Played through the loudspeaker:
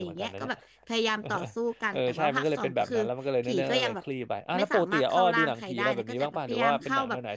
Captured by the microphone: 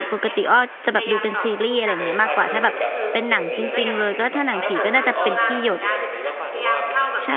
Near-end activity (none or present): present